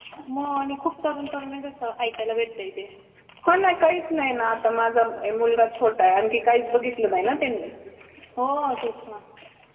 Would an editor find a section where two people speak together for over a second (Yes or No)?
No